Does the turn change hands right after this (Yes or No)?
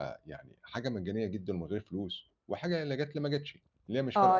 Yes